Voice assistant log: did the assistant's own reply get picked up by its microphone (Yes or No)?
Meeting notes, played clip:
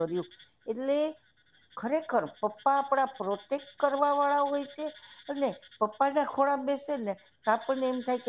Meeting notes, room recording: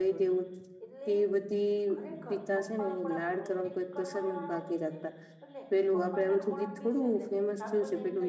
Yes